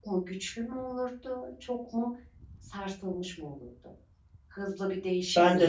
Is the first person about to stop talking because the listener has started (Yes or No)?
Yes